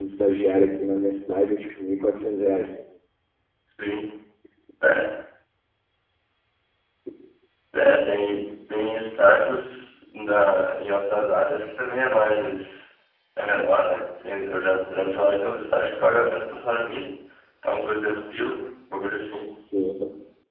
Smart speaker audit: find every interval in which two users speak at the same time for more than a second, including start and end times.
none

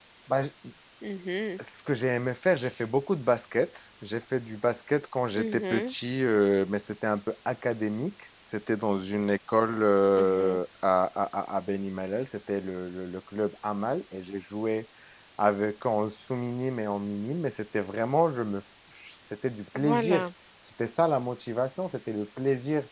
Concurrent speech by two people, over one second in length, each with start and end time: none

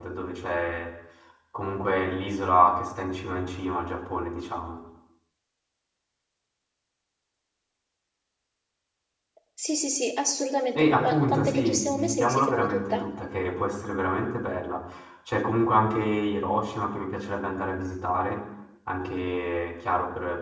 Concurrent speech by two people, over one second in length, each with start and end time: 10.8-13.1

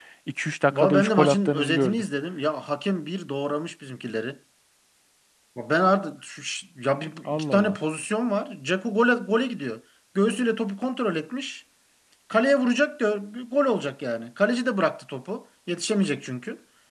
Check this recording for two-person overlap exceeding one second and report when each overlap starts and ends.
0.7-2.0

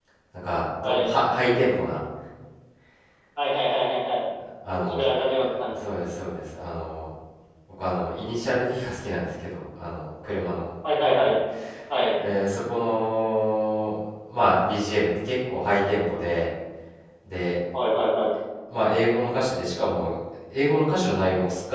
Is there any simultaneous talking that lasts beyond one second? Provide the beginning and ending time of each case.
4.7-6.0

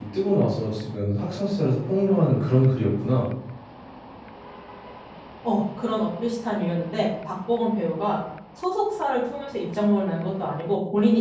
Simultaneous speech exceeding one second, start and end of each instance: none

